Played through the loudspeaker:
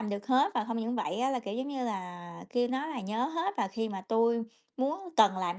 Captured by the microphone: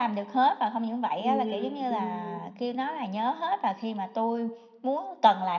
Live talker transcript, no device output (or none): Ừm, ừm. Ừm, ừm.